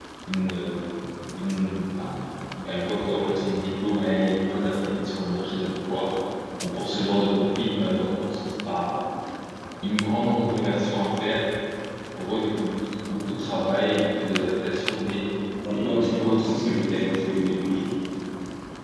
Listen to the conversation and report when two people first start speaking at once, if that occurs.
16 s

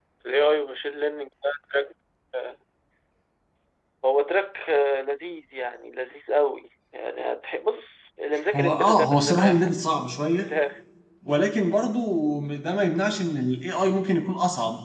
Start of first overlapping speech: 9 s

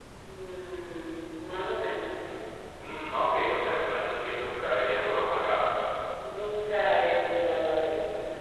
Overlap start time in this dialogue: none

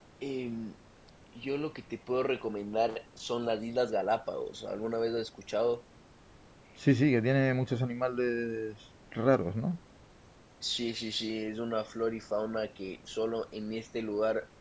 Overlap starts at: none

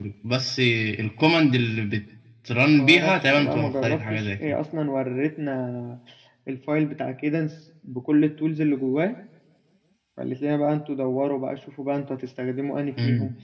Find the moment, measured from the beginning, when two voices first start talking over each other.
3 s

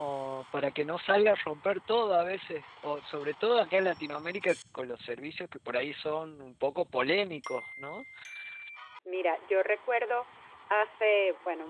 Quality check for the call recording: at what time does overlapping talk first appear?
none

